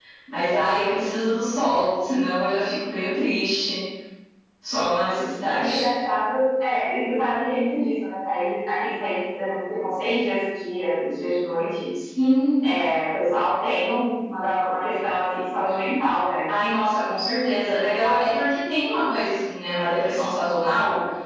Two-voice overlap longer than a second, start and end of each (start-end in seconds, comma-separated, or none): none